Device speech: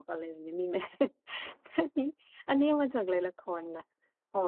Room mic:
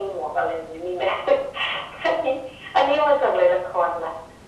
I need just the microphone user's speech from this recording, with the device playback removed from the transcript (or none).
none